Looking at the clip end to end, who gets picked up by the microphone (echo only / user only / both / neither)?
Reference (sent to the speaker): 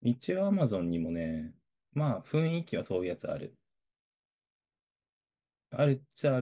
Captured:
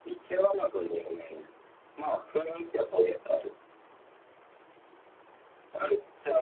echo only